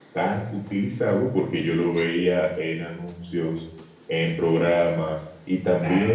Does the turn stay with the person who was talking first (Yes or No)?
Yes